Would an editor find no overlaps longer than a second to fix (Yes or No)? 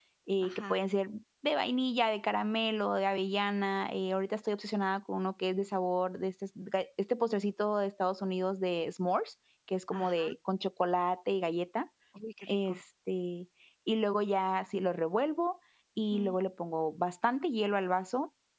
Yes